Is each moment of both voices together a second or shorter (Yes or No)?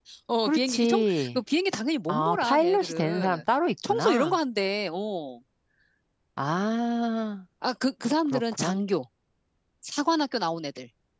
No